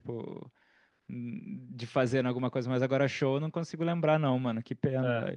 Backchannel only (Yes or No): No